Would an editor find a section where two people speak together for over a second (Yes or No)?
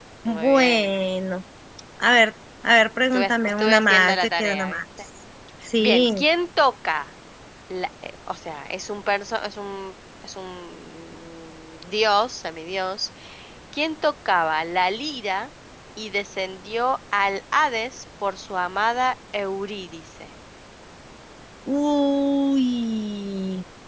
Yes